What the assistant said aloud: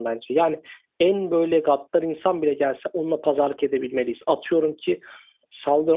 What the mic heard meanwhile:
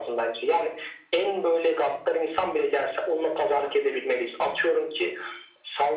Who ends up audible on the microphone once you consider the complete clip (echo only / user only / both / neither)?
echo only